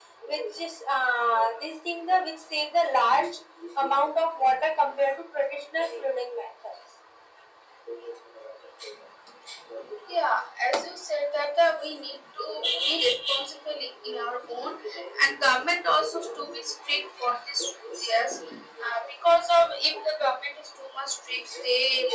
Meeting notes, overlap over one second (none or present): none